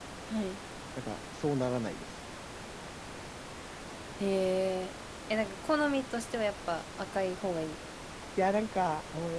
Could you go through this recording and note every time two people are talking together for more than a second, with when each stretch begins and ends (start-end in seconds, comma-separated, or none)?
none